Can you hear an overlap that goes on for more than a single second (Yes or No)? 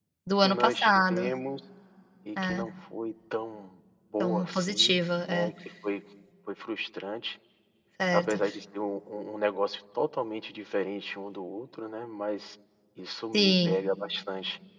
Yes